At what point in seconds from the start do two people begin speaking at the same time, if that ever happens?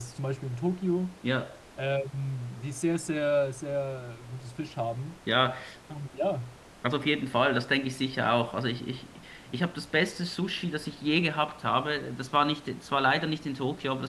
none

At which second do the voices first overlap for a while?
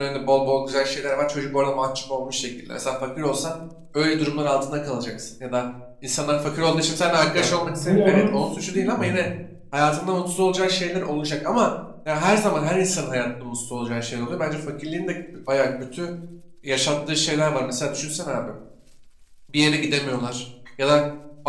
7 s

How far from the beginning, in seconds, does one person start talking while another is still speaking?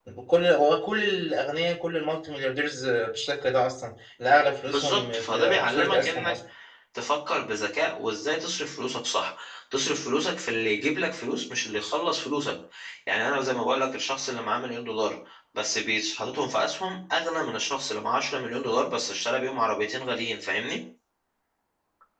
5 s

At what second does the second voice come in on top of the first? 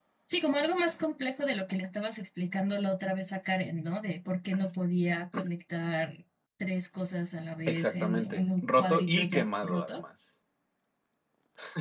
8 s

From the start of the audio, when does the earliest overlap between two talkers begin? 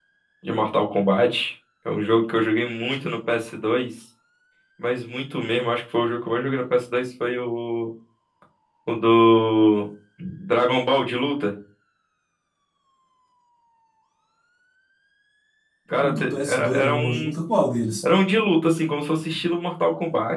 16 s

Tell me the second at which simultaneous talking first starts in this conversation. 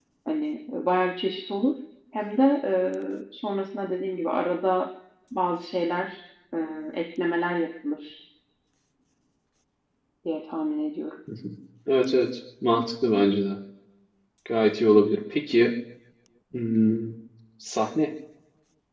none

